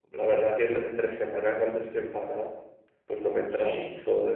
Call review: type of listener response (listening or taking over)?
listening